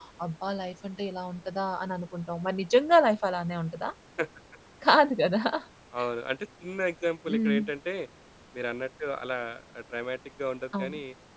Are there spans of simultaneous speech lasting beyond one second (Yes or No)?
No